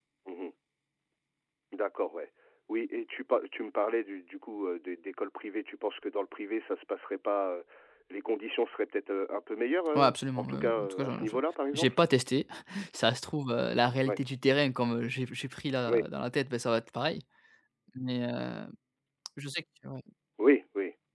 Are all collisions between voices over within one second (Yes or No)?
No